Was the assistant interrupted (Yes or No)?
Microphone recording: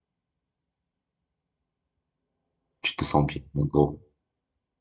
Yes